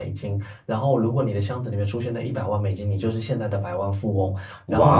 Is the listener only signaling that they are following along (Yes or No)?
Yes